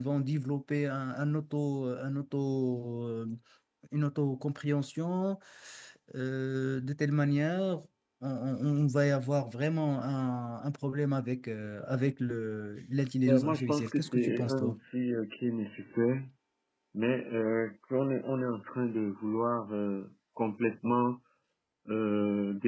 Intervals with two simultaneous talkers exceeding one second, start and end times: 13.3-14.8

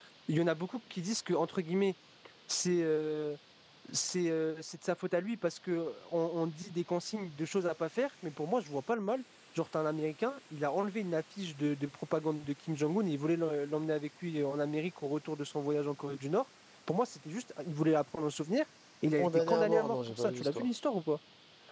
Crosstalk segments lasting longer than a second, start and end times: 19.2-20.7

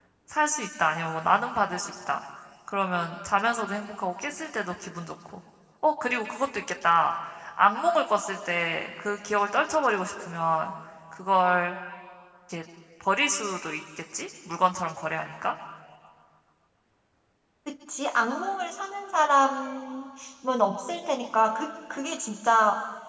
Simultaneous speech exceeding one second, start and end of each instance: none

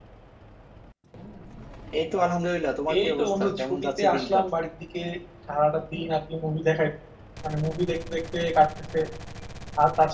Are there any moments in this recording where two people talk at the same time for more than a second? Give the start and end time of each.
3.0-4.5

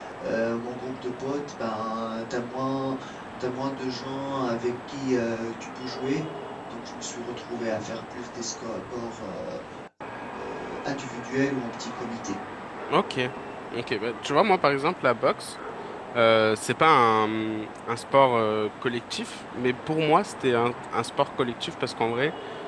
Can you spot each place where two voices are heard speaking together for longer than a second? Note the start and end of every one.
none

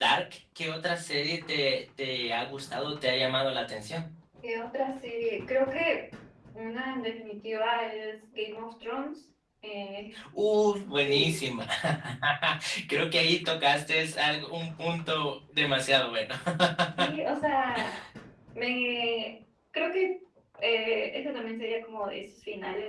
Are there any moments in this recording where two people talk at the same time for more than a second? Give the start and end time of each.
none

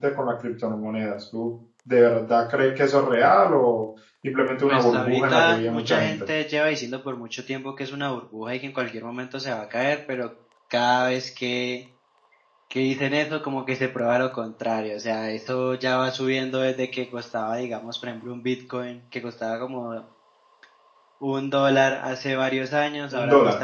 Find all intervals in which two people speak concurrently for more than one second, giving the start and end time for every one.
4.7-6.2

